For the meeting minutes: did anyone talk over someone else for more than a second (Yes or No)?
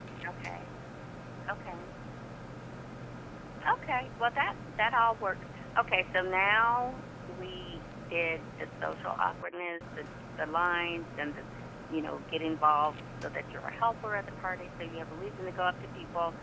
No